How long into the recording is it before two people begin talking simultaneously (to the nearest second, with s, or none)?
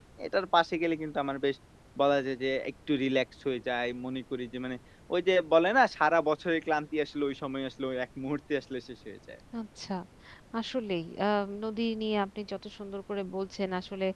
none